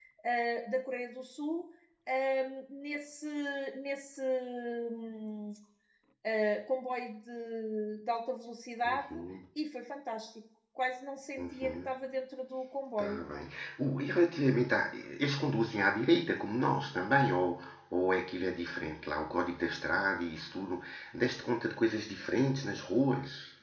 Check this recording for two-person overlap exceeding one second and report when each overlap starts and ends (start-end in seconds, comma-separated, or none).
none